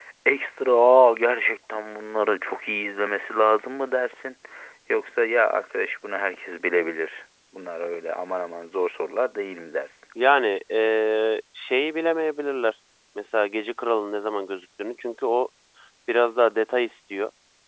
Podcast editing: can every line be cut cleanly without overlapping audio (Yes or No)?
Yes